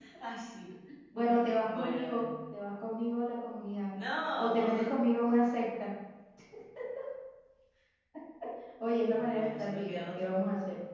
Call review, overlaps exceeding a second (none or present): present